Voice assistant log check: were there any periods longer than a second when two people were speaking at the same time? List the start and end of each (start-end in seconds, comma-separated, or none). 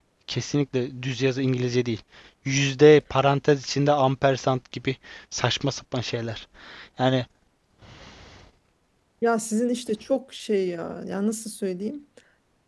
none